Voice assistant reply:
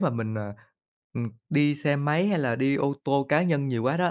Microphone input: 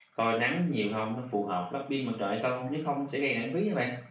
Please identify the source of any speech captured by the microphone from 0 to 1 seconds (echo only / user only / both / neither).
user only